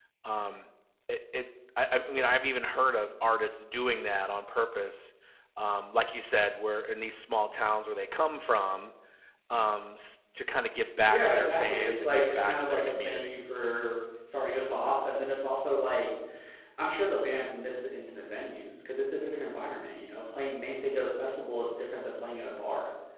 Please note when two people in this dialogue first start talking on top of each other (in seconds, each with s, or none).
11.1 s